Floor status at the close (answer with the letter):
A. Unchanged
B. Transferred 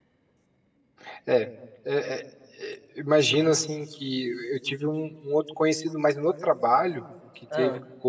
A